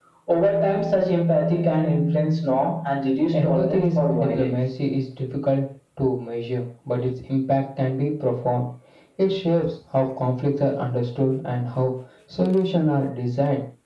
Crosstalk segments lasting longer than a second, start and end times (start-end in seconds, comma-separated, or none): 3.3-4.5